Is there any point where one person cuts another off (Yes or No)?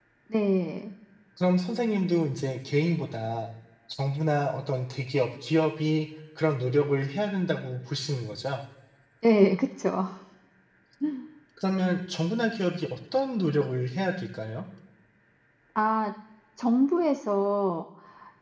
No